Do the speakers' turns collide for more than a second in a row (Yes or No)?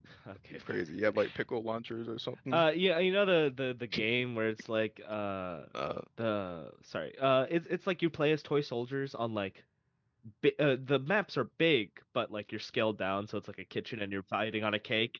No